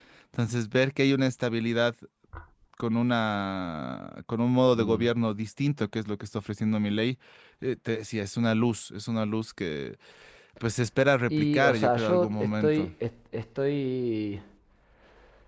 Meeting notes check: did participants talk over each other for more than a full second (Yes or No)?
Yes